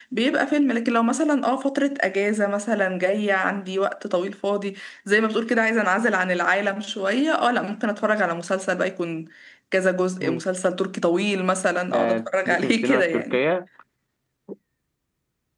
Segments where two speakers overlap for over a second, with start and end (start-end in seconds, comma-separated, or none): 11.9-13.4